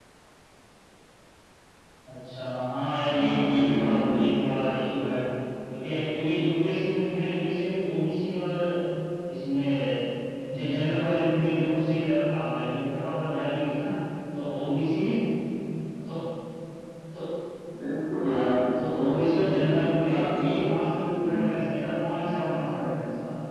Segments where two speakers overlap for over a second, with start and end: 3.1-4.5, 19.0-20.6

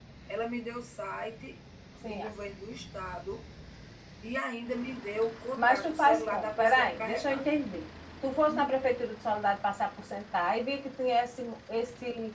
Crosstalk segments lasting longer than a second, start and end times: 5.6-7.4

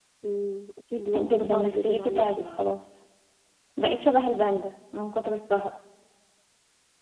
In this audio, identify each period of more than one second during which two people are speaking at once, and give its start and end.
1.2-2.6

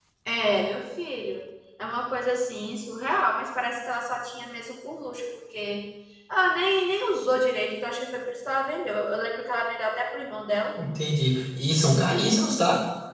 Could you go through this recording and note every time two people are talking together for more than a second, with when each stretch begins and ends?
none

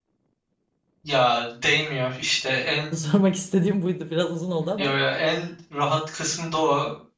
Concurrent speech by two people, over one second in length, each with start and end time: none

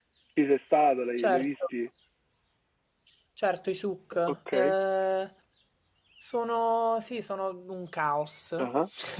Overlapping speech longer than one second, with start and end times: none

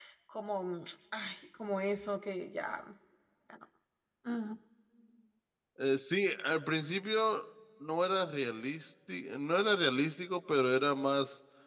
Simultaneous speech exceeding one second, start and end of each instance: none

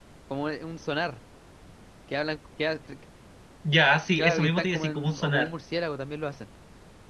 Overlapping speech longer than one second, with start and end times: 4.2-5.5

